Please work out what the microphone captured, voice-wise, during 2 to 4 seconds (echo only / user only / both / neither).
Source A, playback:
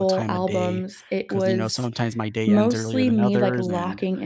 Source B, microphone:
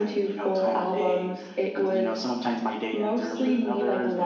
echo only